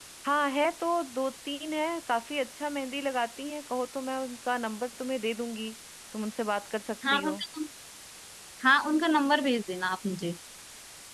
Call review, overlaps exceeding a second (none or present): none